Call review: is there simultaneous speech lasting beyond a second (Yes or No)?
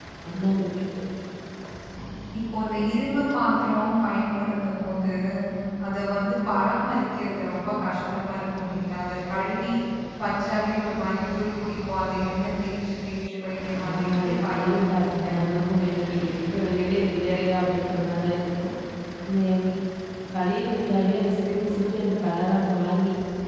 Yes